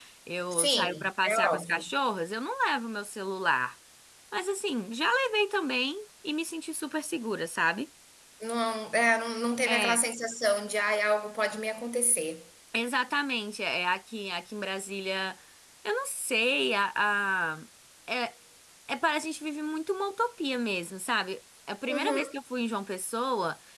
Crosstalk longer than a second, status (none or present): present